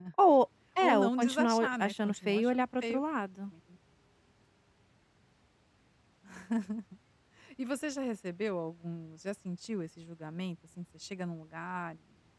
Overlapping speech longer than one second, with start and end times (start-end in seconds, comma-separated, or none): 0.8-3.0